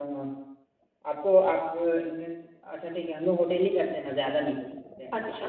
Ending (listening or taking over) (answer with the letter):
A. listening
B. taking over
B